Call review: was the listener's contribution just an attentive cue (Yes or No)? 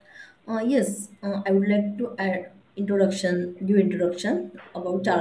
Yes